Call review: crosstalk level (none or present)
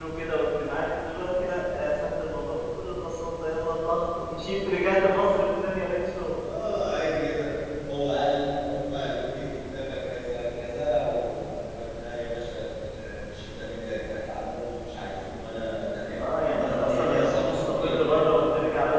present